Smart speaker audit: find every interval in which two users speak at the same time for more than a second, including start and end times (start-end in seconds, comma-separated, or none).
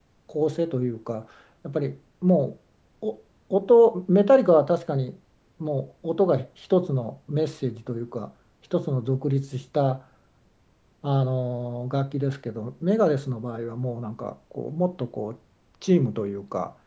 none